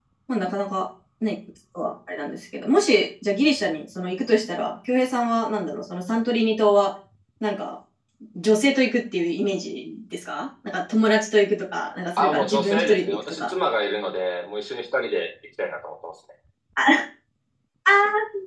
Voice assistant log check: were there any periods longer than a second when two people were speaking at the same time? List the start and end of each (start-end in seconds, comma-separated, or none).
12.2-13.5